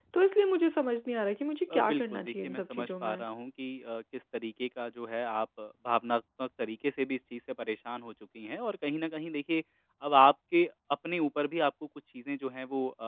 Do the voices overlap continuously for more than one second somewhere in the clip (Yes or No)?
Yes